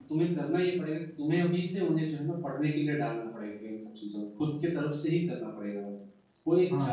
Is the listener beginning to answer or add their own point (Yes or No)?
Yes